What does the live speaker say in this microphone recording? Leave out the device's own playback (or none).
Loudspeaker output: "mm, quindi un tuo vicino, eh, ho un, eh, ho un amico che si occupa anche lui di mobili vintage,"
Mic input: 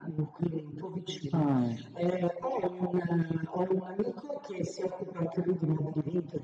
Ah,